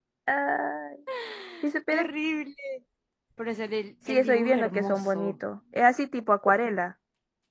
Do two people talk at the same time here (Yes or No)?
Yes